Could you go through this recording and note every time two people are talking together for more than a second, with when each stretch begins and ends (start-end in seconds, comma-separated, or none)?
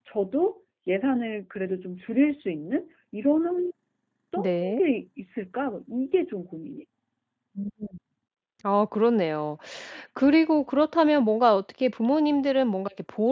none